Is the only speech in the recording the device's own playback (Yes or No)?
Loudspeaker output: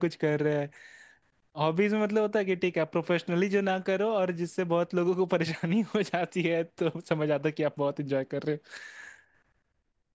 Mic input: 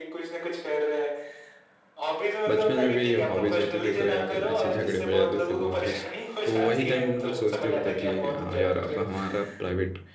No